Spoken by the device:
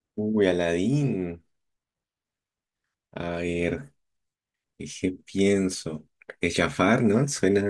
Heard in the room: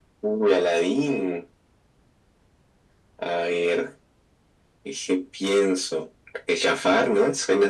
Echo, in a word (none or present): present